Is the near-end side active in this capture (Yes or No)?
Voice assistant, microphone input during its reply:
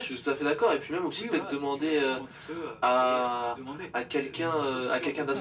Yes